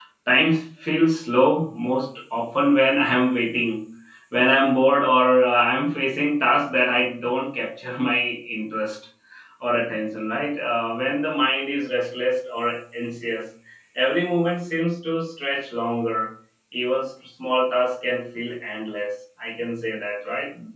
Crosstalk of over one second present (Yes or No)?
No